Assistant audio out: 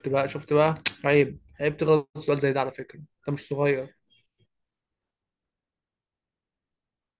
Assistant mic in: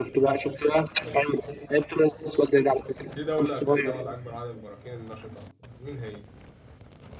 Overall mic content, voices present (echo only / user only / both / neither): both